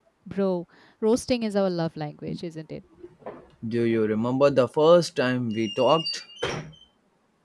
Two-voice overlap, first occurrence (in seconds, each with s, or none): none